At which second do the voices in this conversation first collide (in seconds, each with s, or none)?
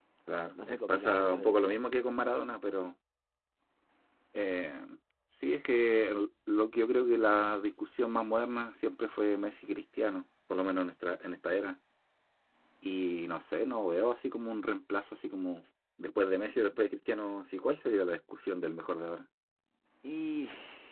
0.6 s